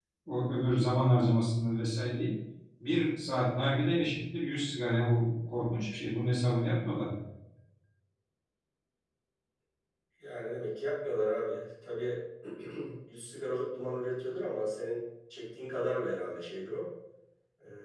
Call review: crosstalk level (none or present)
none